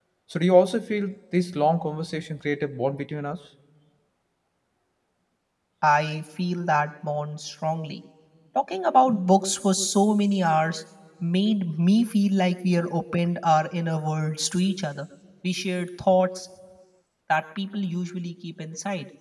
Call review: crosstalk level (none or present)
none